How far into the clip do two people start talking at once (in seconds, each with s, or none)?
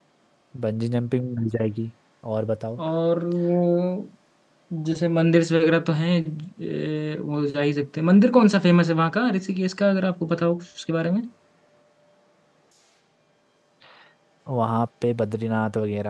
none